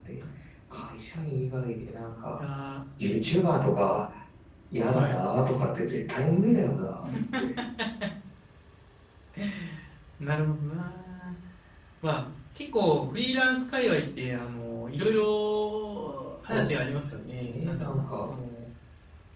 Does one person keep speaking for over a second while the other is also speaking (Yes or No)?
Yes